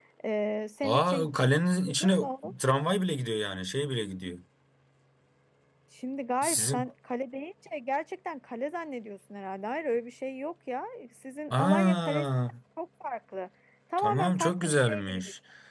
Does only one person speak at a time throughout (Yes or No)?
No